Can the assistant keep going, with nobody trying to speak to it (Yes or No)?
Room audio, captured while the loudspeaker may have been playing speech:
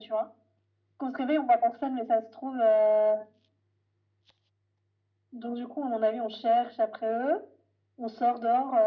Yes